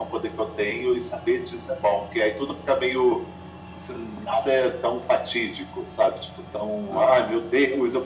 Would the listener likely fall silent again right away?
Yes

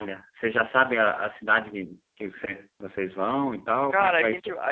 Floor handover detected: Yes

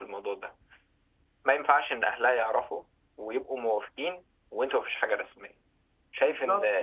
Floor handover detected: Yes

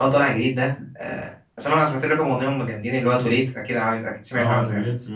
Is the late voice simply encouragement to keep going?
No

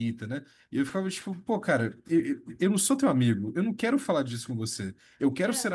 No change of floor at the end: Yes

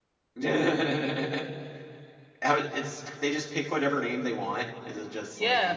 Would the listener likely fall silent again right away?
No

